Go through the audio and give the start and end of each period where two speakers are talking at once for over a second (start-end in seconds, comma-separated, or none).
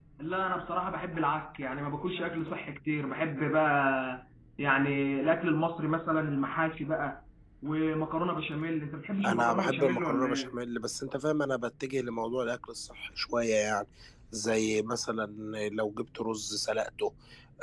9.2-10.5